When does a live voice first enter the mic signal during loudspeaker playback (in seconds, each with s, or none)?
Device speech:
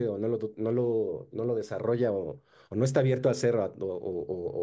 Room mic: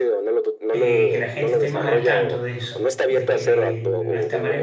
0.7 s